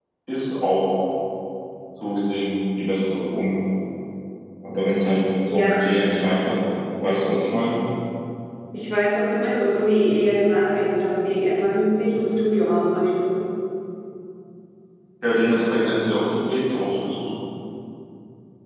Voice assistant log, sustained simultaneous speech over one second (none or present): none